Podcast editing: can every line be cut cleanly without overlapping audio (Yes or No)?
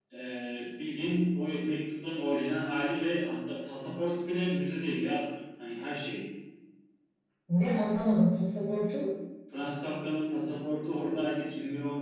Yes